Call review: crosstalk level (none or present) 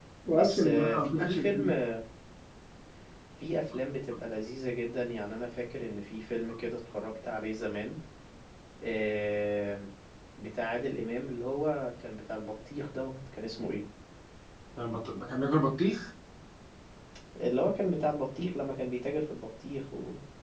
present